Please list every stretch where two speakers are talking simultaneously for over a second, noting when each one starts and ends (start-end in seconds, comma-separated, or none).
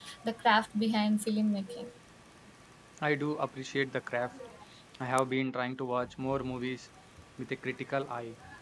none